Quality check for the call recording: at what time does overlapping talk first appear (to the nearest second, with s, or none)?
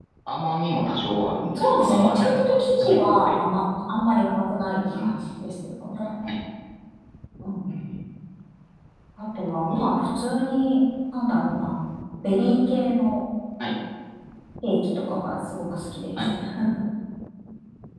2 s